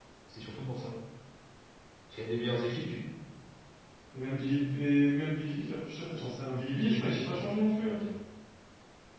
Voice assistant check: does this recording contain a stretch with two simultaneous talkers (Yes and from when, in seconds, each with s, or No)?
Yes, from 6.8 s